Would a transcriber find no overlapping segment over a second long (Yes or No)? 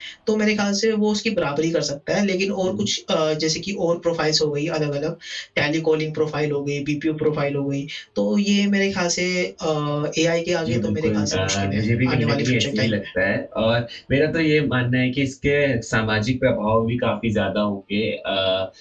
No